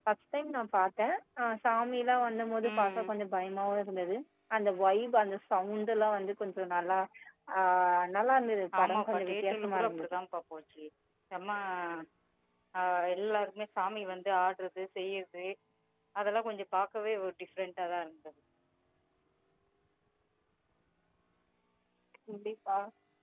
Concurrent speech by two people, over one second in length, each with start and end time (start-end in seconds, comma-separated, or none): 8.8-10.1